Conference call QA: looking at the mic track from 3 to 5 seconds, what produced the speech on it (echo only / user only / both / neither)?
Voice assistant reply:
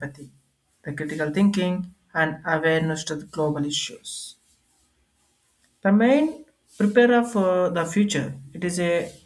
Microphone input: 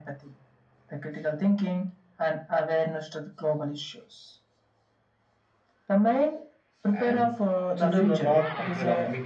echo only